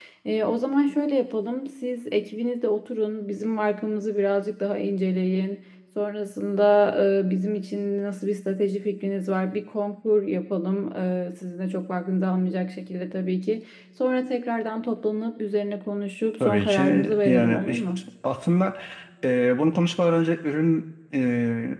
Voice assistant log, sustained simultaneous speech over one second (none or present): present